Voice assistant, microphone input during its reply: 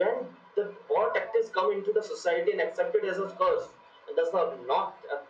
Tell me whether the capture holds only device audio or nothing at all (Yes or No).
Yes